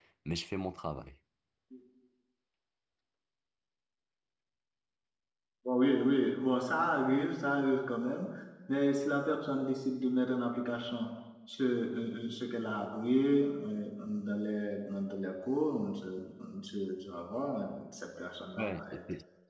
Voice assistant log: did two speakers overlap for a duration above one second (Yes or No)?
No